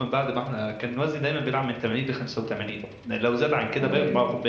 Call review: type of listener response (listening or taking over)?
listening